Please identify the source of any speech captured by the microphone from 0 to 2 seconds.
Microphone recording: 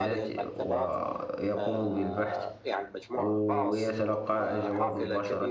both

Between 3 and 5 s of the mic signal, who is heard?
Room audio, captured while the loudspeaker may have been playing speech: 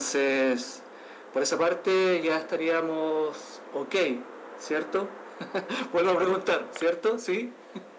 echo only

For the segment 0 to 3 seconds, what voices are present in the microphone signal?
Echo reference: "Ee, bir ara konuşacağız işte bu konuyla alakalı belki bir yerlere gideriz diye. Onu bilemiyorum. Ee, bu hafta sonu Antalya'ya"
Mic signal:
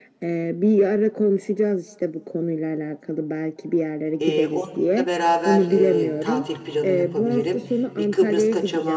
echo only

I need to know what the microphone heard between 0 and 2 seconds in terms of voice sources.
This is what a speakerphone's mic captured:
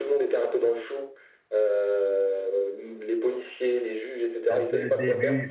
echo only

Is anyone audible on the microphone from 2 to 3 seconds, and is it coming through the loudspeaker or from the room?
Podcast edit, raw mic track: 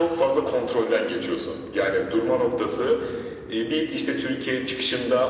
echo only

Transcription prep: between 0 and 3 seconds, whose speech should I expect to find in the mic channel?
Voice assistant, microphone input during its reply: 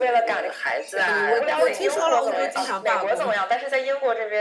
both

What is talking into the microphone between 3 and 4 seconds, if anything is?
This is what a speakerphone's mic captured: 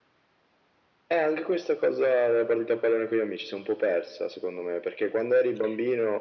echo only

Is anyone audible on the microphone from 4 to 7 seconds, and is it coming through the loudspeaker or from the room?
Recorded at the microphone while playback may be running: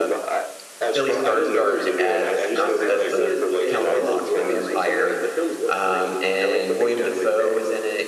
both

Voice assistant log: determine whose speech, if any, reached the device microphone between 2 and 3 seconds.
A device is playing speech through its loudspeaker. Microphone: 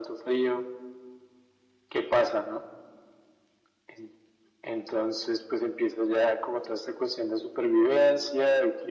echo only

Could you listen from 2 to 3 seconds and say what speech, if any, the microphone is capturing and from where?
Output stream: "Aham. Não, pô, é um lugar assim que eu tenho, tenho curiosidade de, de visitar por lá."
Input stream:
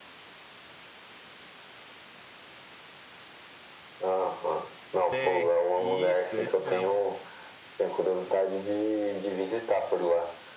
neither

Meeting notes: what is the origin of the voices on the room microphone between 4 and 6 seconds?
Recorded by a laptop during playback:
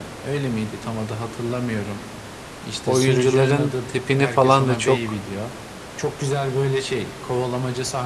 both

